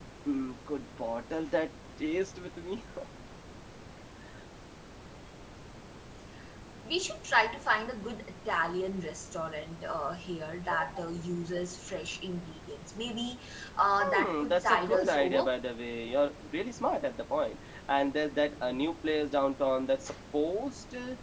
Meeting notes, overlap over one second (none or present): present